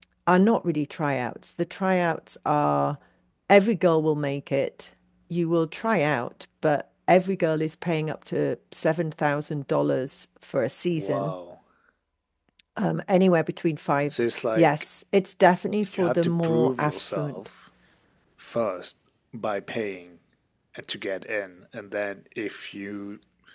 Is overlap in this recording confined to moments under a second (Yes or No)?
No